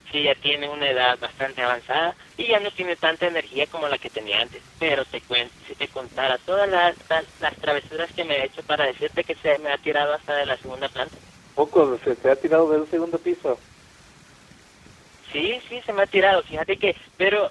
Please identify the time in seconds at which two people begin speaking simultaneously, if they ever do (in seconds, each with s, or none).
none